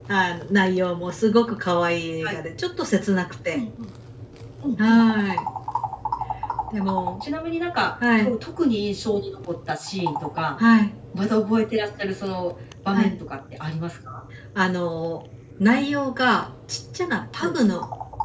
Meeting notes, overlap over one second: none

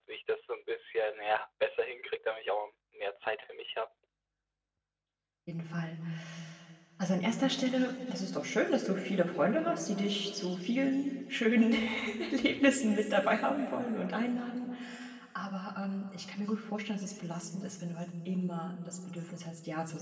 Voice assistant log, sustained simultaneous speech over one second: none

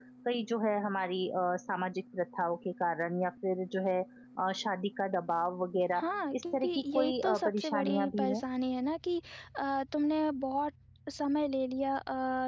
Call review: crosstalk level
present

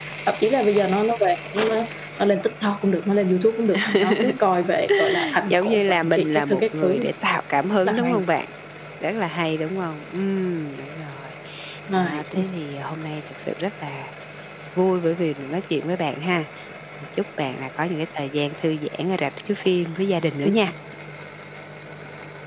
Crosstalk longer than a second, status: present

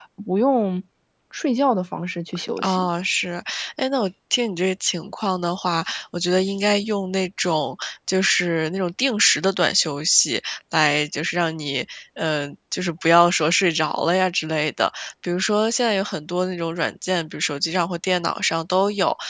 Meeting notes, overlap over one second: none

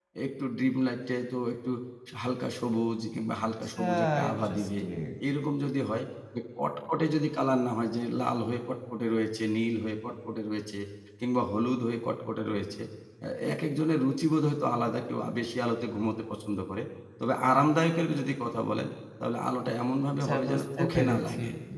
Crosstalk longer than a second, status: present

